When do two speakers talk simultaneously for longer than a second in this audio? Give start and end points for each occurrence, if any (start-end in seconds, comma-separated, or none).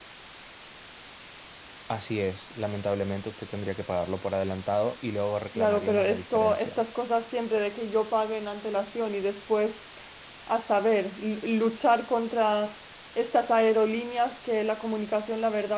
5.5-6.8